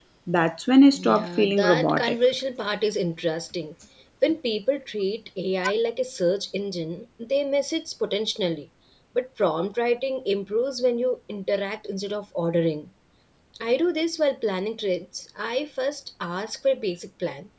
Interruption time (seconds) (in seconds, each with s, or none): 1.0 s